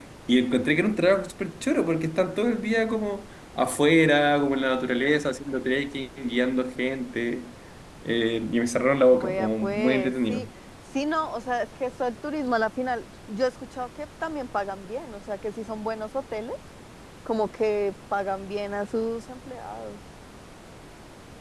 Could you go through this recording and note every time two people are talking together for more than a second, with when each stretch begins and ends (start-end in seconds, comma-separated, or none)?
9.1-10.4